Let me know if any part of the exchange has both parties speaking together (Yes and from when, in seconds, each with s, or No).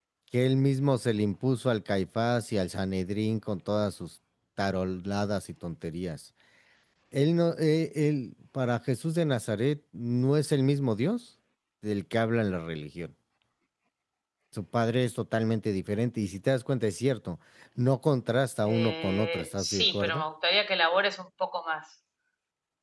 Yes, from 18.6 s